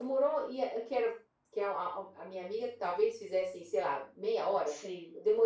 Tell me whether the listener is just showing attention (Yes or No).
Yes